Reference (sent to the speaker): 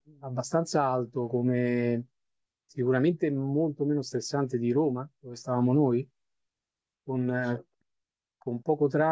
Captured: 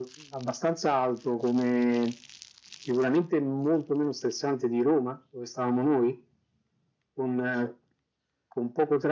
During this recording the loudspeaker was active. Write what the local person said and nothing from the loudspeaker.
none

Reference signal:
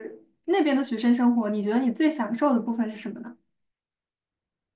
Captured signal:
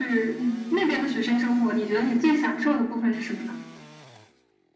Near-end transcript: 嗯，确实。

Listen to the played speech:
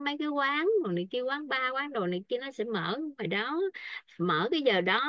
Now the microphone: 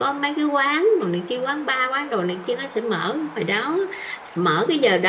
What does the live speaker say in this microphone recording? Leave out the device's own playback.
none

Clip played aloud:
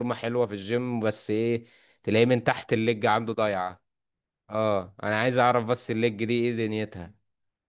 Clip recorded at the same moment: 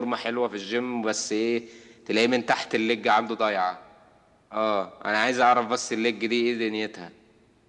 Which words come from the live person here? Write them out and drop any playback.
none

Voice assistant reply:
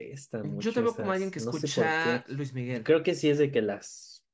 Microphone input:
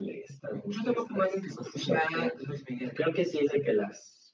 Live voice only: none

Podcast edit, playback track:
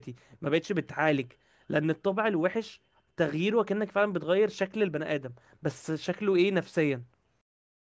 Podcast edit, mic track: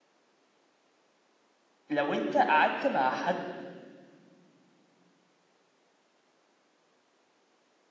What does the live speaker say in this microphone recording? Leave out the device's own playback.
لو انت قعدت مع حد

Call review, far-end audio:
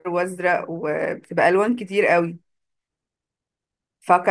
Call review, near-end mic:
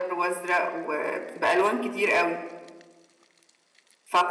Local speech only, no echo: none

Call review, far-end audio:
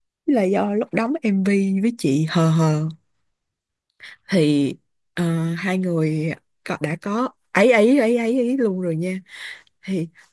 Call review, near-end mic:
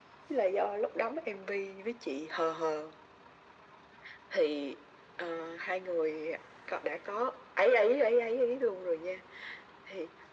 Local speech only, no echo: none

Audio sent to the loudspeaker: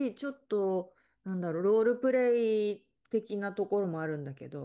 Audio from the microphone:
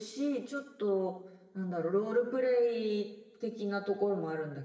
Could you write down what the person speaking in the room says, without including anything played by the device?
none

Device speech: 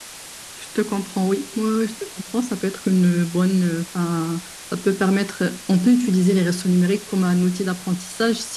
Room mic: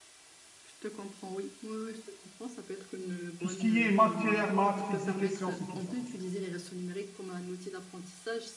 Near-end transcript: Tout ce qui est matière, maths, physique et sciences et tout ça.

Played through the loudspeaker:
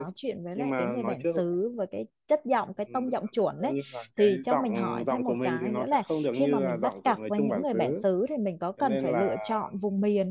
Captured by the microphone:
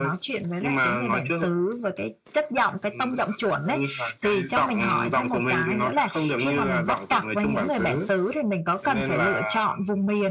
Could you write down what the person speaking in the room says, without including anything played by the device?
none

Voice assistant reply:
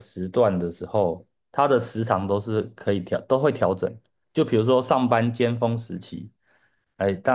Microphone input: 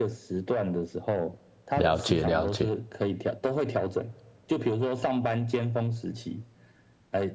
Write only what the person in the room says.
了解了解。

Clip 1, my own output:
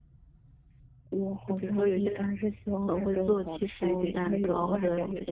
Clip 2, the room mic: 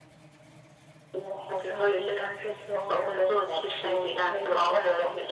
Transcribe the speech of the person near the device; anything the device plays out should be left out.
none

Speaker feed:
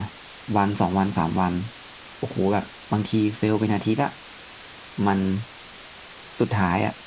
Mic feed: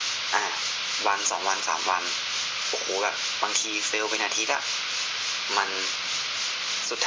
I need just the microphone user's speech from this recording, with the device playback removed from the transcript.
none

